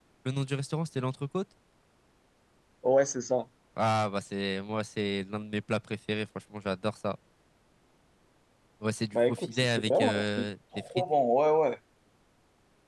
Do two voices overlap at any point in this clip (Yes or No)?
Yes